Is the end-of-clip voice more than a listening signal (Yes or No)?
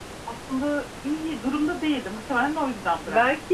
Yes